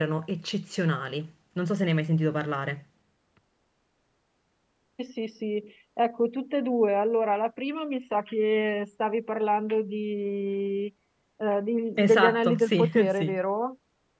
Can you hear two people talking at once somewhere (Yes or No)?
Yes